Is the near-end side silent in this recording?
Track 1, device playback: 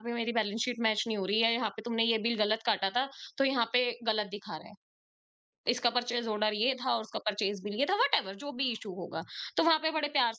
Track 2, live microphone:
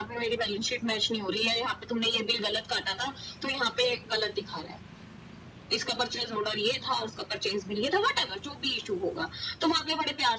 Yes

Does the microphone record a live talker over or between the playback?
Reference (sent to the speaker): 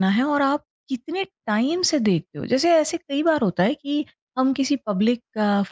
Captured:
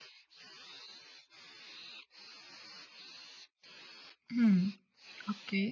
Yes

